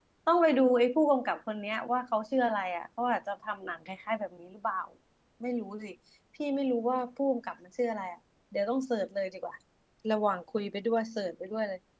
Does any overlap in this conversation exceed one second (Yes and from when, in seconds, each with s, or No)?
No